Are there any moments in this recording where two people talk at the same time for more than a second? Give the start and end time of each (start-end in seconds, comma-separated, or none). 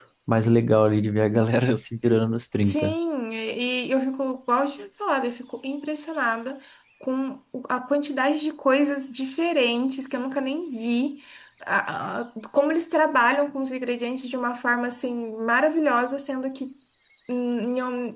none